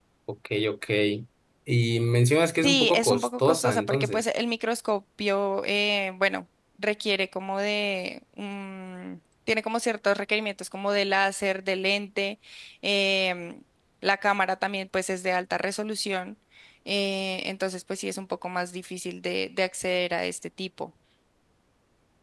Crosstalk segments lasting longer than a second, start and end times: 2.6-4.2

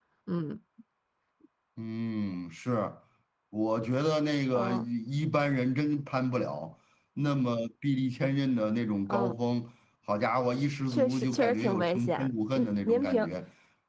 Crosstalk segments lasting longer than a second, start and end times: 10.9-13.3

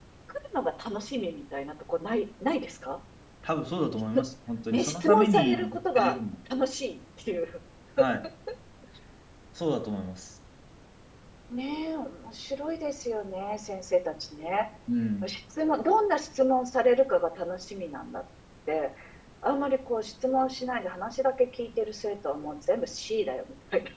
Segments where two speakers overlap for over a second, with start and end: 4.7-6.2

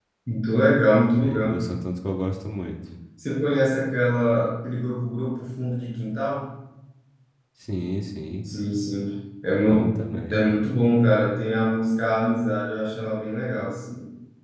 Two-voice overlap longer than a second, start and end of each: none

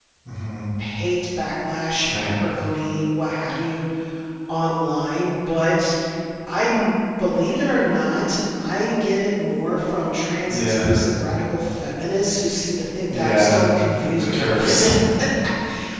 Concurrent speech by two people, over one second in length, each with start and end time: 13.1-14.9

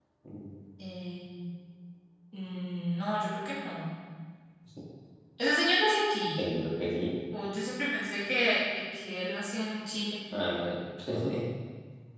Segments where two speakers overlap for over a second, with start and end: none

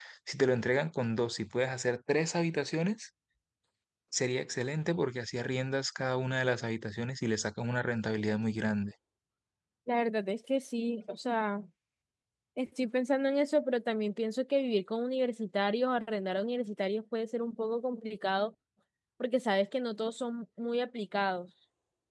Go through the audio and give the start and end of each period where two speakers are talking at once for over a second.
none

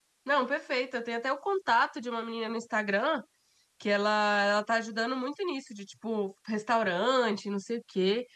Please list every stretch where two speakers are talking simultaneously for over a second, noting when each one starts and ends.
none

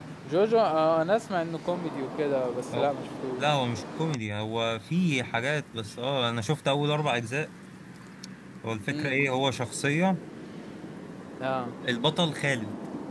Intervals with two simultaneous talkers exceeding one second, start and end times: none

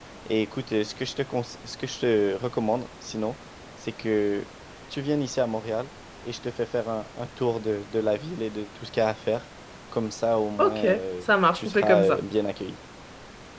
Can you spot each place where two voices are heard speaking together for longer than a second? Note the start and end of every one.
10.6-12.2

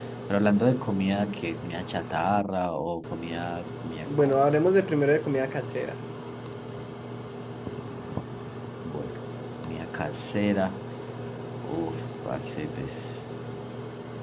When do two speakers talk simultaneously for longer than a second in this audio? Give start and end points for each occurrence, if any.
none

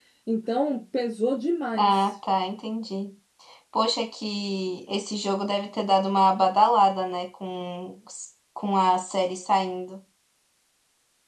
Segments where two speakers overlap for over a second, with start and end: none

